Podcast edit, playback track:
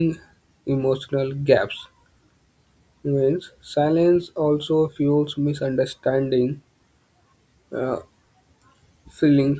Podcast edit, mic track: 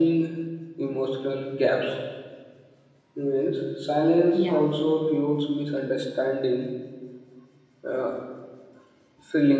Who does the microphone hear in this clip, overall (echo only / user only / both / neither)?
both